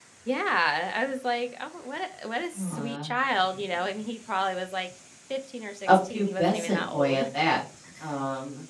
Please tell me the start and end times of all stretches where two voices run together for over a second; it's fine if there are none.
5.9-7.2

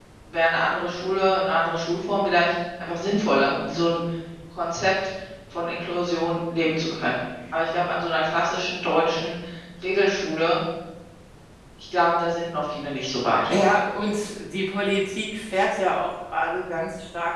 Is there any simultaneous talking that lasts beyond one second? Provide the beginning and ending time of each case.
none

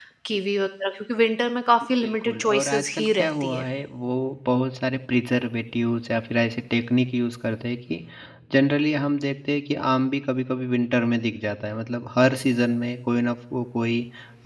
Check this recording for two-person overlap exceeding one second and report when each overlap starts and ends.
2.0-3.6

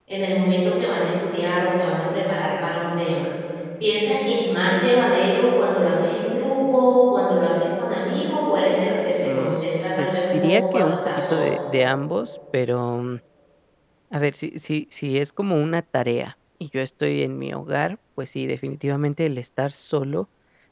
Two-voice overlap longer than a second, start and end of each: 10.0-11.5

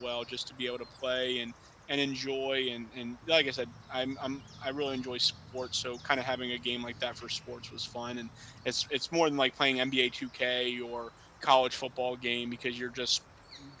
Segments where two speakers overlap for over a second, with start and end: none

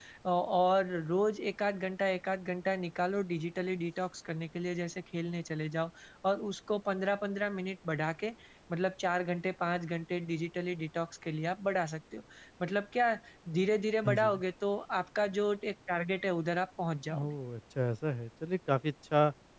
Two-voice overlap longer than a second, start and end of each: none

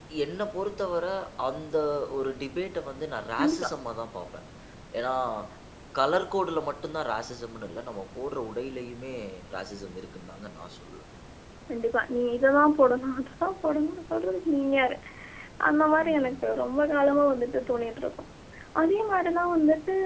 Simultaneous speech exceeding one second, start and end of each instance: none

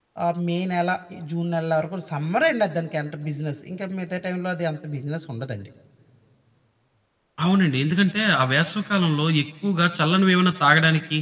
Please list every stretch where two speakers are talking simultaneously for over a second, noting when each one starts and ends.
none

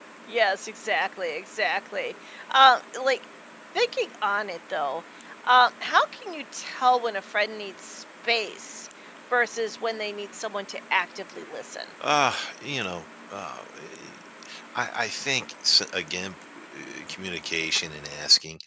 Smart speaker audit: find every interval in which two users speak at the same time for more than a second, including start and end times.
none

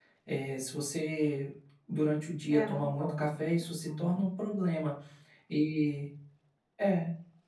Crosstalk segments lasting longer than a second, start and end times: 2.5-4.2

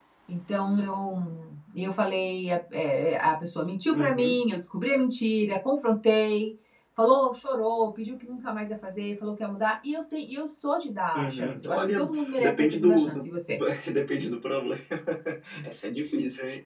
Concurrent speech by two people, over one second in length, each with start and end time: 11.2-13.2

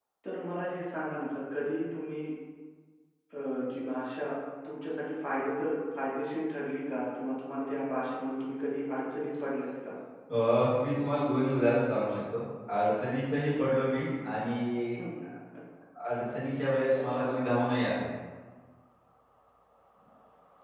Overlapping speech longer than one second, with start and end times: none

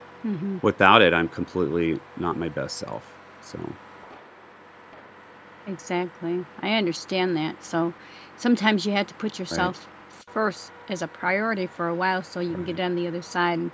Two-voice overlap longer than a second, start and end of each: none

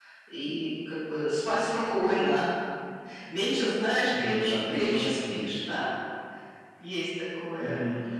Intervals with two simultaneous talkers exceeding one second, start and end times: 4.1-5.5

